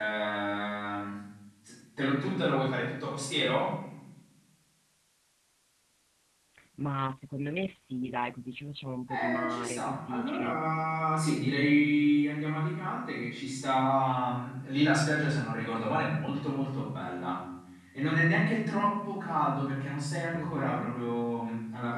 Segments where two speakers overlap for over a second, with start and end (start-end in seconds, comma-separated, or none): 9.1-10.6